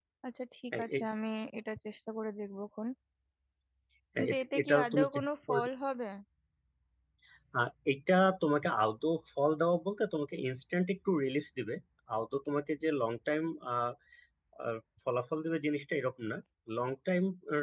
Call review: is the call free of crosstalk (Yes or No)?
No